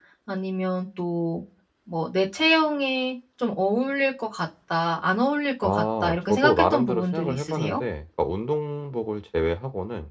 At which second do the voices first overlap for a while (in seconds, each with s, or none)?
5.6 s